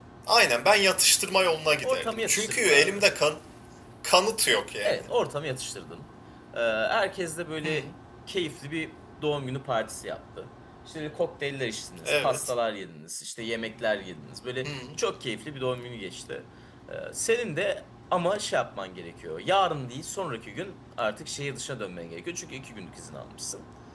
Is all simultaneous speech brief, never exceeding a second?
No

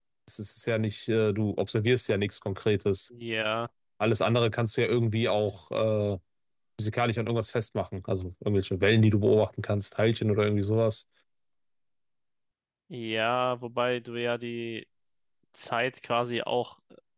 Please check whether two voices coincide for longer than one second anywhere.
No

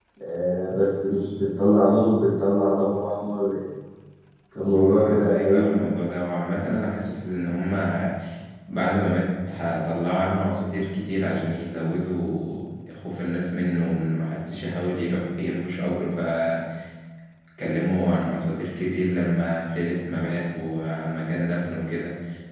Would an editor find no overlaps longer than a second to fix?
No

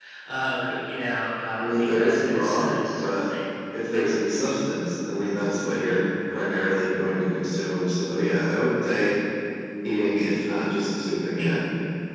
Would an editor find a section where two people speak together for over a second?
Yes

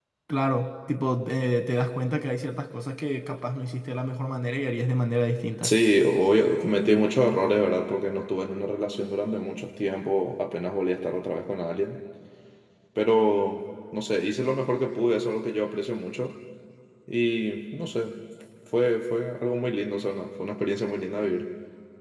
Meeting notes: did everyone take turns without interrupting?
Yes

